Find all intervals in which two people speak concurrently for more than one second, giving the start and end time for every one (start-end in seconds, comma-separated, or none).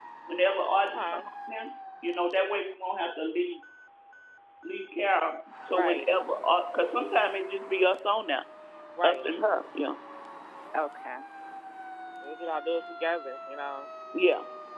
none